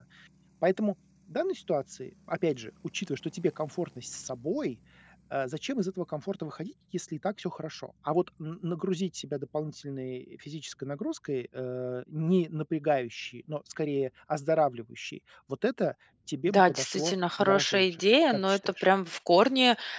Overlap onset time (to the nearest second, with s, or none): 16 s